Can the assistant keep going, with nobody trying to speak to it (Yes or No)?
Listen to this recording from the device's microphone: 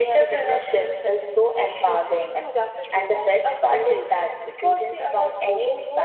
Yes